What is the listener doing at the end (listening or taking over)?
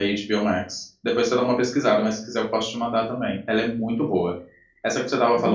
listening